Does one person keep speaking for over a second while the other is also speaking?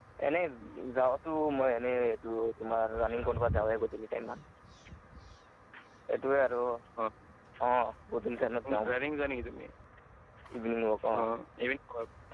No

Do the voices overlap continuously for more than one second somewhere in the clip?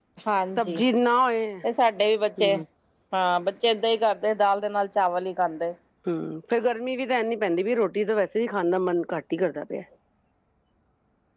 No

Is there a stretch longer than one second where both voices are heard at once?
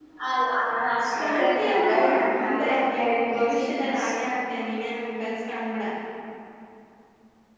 Yes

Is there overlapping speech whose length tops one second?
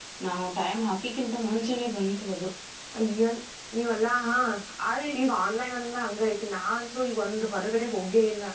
No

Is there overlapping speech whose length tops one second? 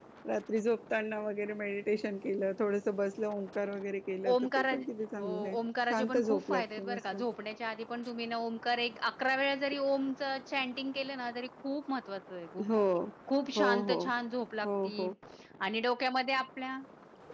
Yes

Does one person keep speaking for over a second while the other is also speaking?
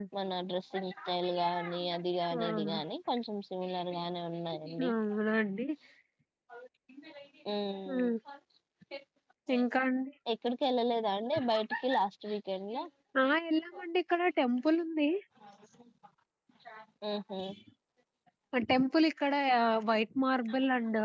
No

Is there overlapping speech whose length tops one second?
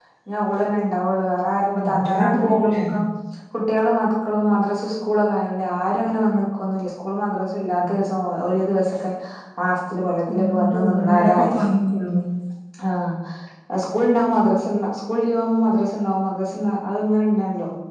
Yes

